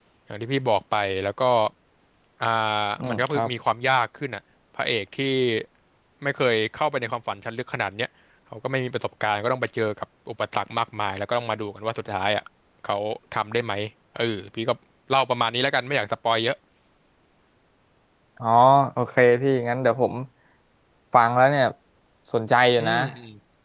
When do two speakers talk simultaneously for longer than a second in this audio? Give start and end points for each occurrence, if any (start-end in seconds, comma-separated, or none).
none